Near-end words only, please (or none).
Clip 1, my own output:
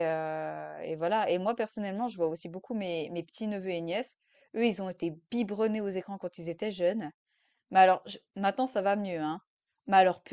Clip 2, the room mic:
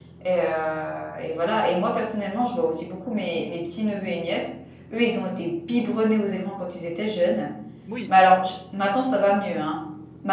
Oui,